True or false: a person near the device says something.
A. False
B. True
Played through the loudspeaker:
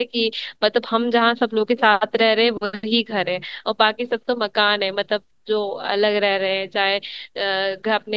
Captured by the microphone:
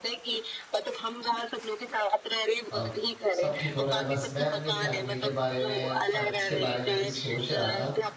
B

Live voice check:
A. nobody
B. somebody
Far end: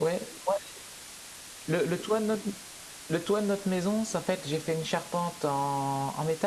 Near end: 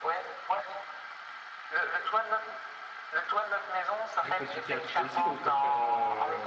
B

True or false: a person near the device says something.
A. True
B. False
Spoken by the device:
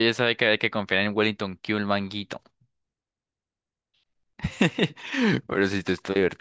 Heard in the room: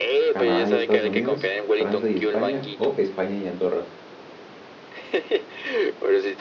A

